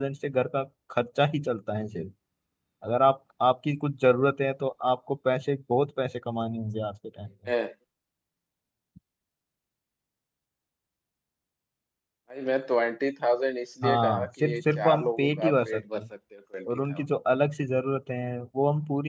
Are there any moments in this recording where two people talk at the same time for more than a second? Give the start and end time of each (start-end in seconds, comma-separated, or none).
13.8-16.0